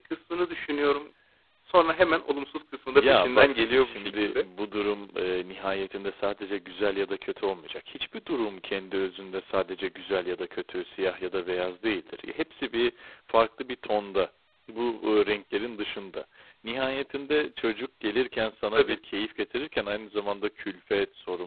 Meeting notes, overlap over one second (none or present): present